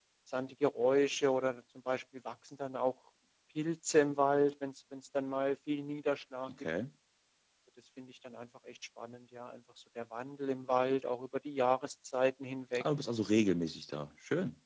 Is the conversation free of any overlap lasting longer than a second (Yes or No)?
Yes